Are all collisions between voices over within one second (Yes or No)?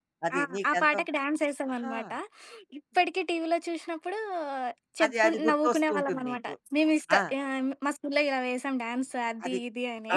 No